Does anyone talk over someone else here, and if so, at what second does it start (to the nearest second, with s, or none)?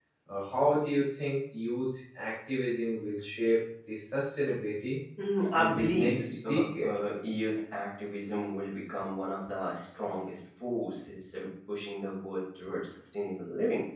6 s